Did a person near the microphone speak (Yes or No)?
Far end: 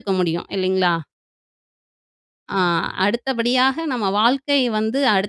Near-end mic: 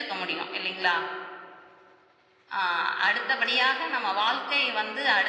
No